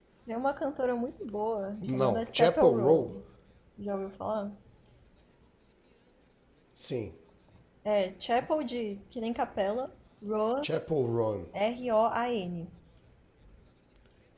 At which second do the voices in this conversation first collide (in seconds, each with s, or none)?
1.8 s